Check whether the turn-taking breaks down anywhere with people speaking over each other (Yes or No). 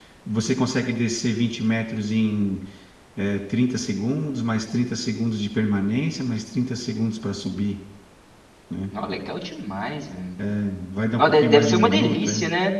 Yes